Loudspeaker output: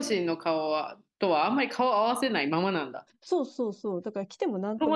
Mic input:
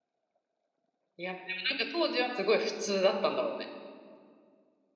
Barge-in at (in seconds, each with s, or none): 1.2 s